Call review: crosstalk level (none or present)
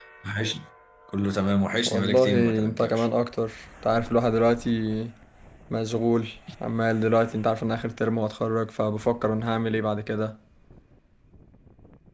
present